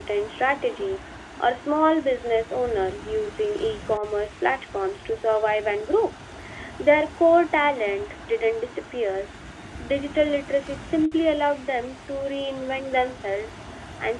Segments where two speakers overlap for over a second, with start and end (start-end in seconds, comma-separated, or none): none